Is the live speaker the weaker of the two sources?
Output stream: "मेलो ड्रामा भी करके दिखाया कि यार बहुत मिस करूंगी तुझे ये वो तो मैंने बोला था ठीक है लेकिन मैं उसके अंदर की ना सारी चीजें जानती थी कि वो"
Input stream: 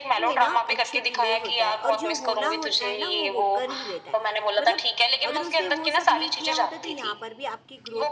Yes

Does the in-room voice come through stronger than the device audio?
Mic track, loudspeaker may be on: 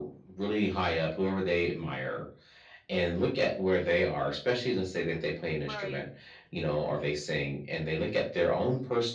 No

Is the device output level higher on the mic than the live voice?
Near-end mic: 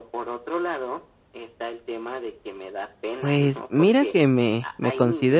No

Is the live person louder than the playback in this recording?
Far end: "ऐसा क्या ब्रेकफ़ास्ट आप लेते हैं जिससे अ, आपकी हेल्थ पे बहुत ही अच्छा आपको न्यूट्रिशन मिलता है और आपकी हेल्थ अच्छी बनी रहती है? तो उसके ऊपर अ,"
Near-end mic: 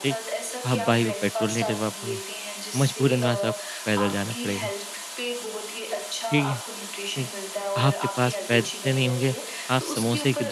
Yes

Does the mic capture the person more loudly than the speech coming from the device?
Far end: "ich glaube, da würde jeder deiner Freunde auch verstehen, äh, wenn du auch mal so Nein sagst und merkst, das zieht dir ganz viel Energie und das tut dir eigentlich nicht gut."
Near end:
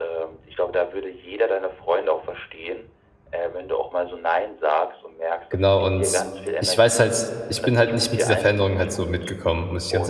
Yes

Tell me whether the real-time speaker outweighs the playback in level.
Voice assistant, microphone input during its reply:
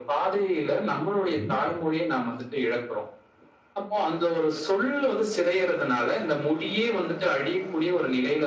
No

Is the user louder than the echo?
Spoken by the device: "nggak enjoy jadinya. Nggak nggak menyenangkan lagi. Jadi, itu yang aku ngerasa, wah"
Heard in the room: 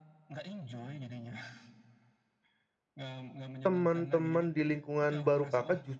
Yes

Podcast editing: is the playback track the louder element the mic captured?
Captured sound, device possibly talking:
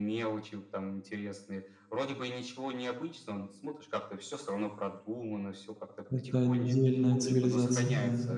No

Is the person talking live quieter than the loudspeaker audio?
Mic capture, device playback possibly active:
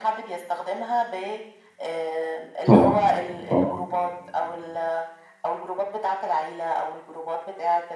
No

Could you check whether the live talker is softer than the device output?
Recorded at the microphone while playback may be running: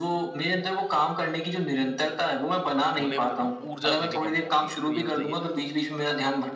Yes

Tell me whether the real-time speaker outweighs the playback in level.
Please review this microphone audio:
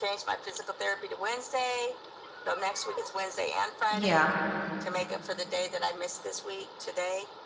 Yes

